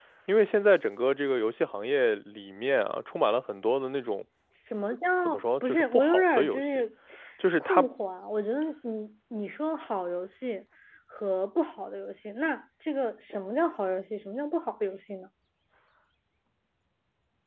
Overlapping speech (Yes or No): Yes